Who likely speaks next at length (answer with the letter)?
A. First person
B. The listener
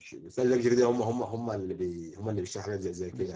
B